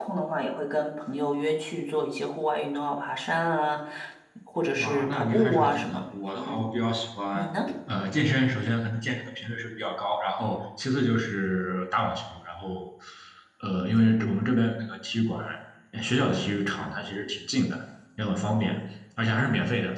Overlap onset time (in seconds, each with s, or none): 4.8 s